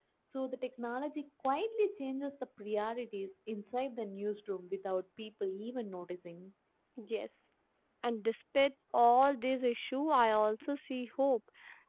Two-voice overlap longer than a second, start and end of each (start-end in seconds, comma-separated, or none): none